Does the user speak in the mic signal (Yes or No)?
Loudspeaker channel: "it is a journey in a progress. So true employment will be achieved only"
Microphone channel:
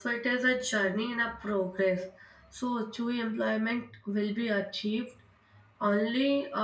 No